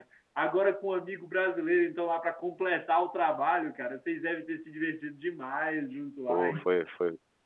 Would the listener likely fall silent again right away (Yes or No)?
No